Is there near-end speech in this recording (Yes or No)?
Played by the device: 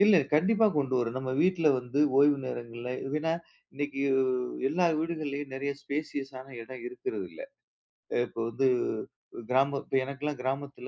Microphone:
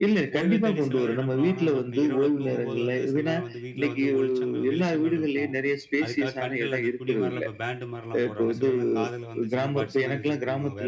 Yes